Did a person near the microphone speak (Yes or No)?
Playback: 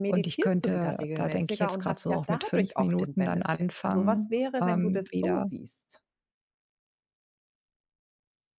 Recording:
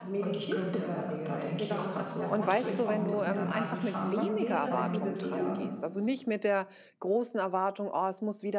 Yes